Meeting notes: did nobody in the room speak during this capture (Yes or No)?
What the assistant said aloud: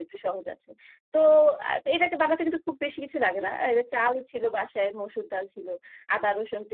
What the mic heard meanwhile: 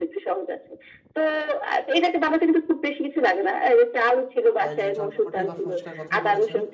No